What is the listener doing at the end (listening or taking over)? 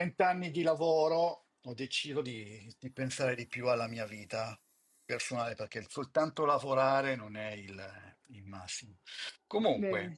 listening